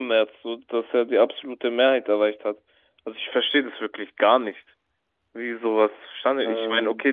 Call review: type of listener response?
listening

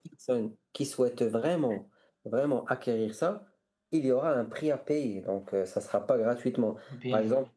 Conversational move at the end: listening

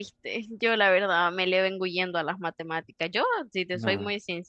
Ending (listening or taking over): listening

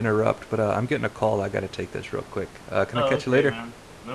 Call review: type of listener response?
taking over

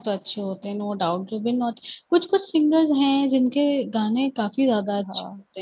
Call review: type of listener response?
taking over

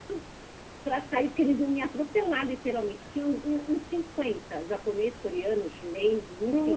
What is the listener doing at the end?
listening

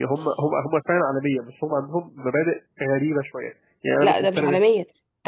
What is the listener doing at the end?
taking over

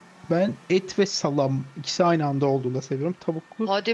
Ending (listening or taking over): taking over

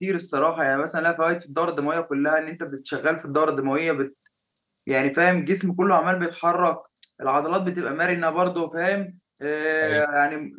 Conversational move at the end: listening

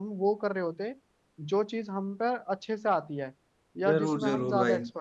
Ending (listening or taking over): taking over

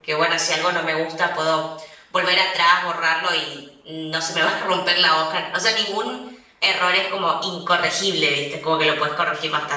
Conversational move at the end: listening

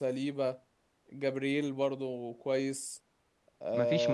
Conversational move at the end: listening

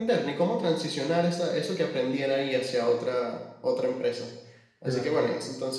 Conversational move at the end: listening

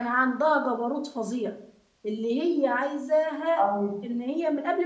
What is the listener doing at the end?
listening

